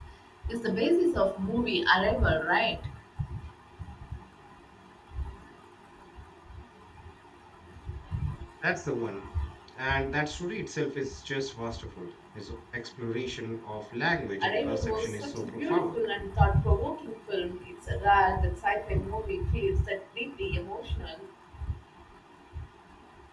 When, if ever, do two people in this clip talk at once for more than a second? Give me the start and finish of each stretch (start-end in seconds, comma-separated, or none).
14.4-15.9